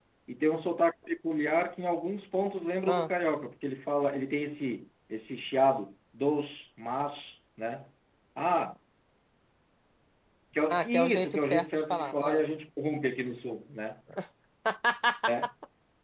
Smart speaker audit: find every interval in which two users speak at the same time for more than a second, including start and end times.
10.7-12.4

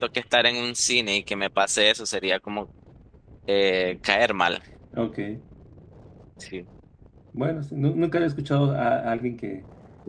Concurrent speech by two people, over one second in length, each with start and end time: none

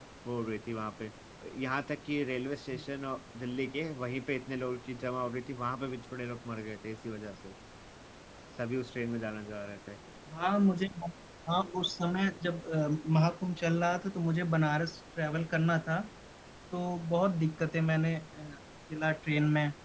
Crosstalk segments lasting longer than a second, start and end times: none

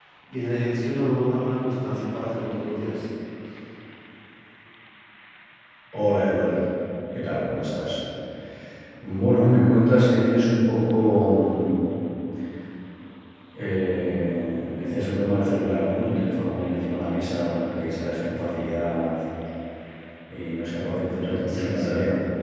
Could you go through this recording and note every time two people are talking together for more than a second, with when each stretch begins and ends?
none

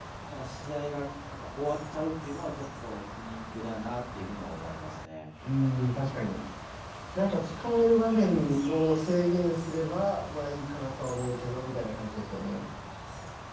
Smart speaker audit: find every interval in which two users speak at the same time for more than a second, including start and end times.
none

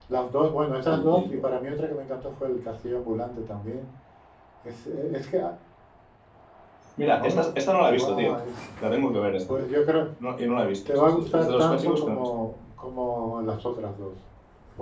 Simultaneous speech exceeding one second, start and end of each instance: 10.9-12.3

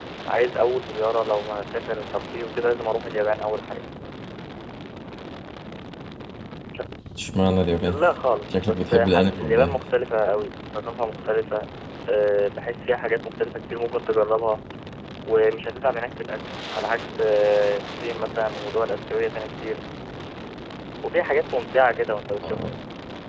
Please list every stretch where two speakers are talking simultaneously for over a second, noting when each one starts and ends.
8.5-9.8

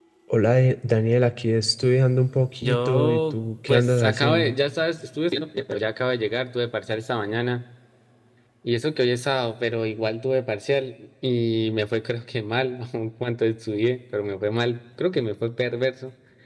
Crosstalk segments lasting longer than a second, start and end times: 2.6-4.6

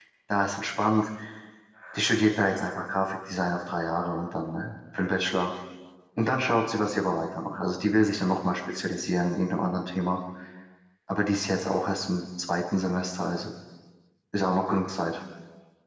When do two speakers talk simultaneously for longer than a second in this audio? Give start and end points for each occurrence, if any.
none

